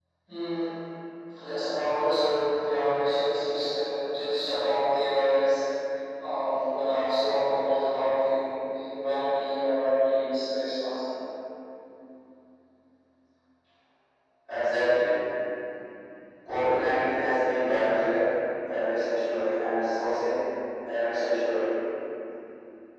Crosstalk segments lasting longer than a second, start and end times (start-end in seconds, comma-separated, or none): none